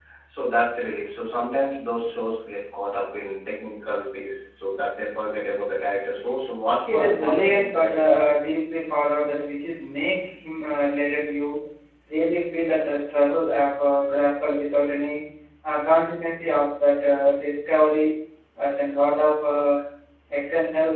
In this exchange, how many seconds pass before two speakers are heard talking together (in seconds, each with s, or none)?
6.9 s